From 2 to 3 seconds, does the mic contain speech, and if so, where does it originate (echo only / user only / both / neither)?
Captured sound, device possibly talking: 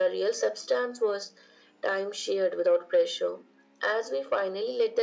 echo only